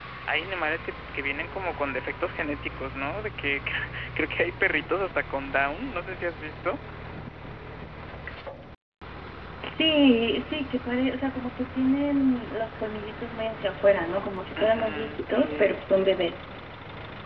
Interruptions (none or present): present